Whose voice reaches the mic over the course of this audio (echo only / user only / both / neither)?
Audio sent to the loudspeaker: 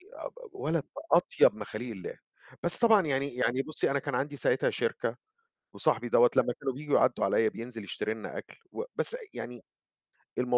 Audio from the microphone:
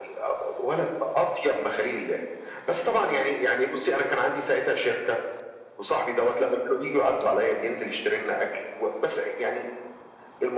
echo only